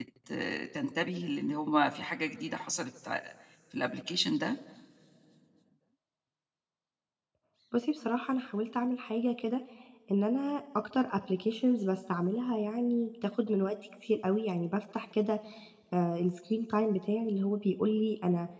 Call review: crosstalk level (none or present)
none